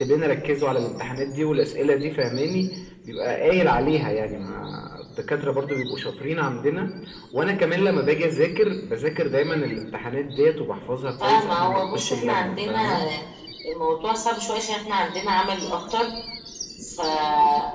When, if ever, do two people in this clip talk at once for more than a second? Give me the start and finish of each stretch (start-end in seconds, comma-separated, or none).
11.2-13.0